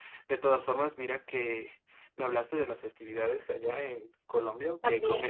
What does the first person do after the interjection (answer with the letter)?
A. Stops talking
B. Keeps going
B